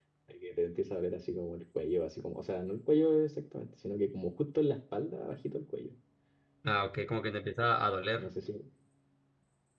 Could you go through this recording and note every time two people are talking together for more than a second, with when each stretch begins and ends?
none

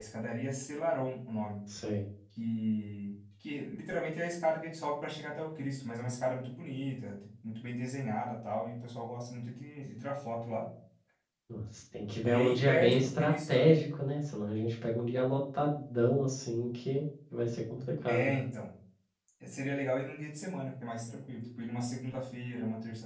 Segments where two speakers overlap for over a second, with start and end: 12.2-13.8

